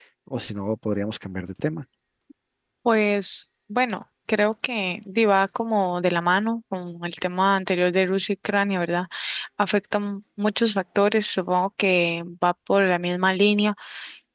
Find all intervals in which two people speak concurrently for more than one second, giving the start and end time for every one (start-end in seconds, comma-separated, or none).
none